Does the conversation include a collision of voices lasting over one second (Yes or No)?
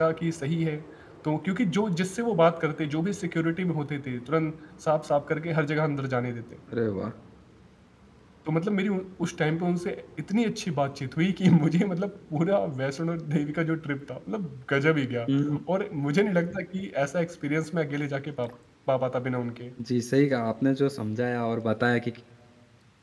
No